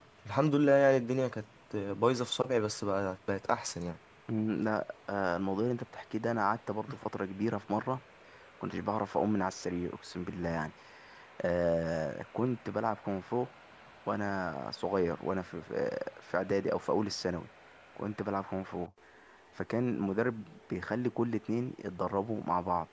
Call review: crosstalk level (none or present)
none